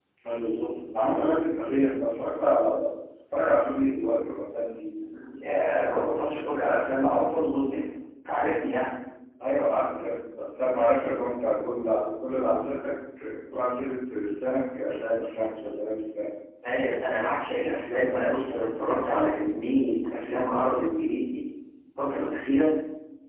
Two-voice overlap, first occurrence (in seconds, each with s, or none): none